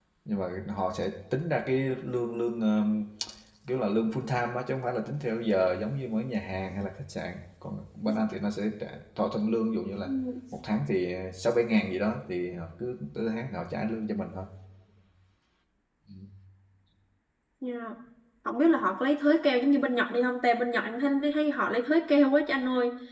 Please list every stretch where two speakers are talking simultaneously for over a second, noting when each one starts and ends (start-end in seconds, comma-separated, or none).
none